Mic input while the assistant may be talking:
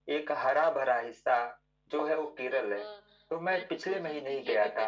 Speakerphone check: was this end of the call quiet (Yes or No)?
No